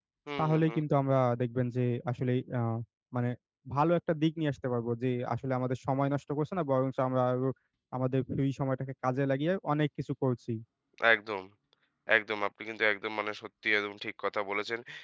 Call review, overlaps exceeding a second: none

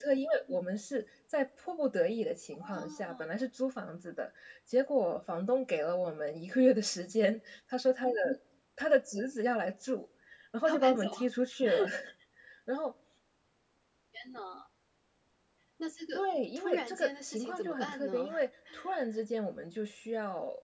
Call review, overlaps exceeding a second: present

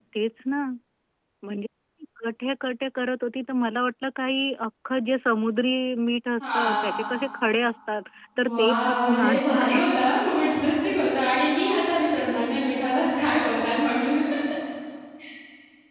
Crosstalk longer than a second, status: present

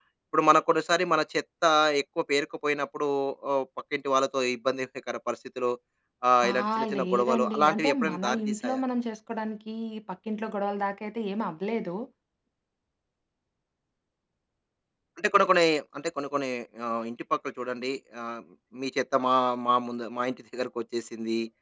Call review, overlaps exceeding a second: present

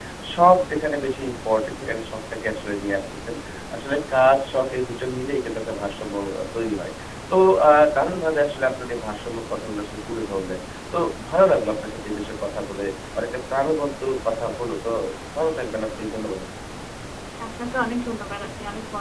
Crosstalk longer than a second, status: none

